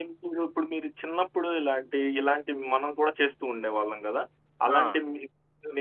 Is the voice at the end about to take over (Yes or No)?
No